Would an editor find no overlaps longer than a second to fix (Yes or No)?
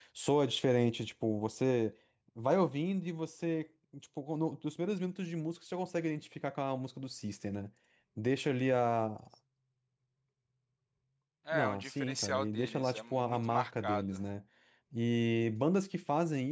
No